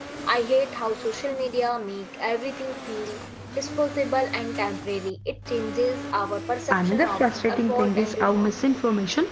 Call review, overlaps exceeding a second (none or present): present